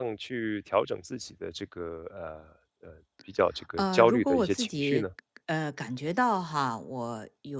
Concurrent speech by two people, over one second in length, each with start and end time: 3.8-5.0

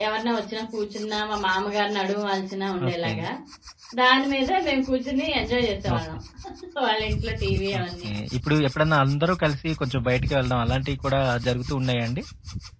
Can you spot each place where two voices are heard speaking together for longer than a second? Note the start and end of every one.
none

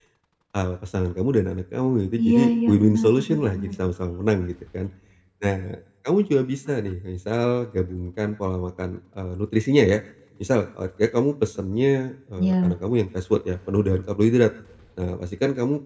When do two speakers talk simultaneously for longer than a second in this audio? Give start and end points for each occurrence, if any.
2.2-3.7

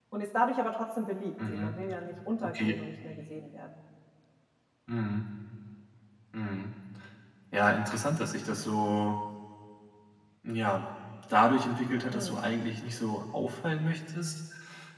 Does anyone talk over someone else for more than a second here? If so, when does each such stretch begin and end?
none

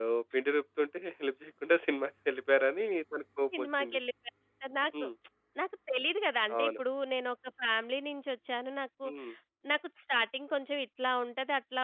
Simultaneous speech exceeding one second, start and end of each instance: none

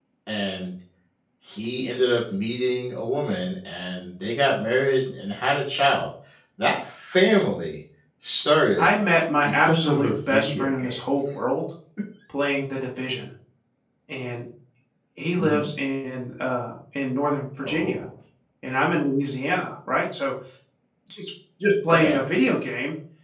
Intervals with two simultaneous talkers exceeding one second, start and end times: 9.4-11.0

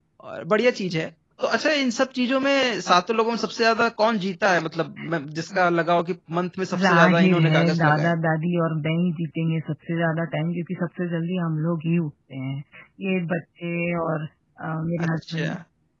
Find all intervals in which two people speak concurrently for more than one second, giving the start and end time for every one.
6.7-8.1

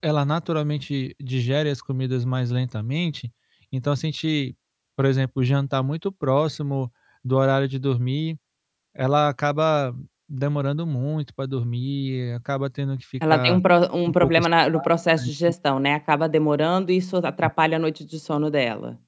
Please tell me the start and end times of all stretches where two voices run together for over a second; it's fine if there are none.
none

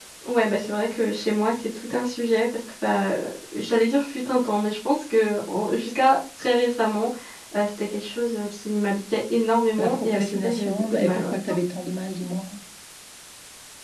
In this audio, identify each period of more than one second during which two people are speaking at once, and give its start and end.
9.8-11.4

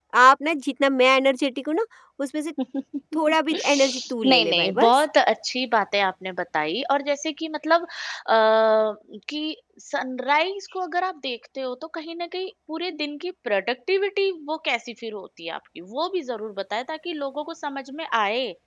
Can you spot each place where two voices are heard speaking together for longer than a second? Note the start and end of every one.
3.3-5.0

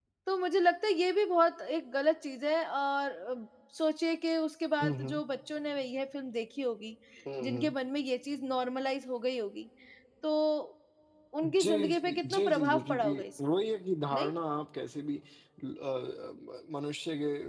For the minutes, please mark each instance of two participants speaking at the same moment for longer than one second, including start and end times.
11.4-13.2

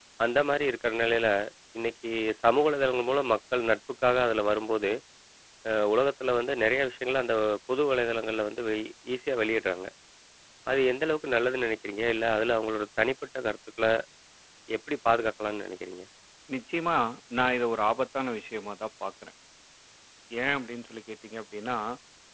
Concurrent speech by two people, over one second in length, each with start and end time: none

